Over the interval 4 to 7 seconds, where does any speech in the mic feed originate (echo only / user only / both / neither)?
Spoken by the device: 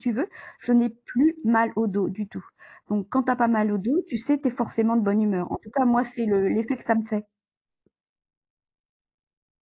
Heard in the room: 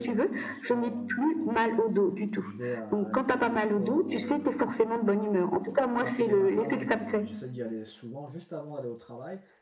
both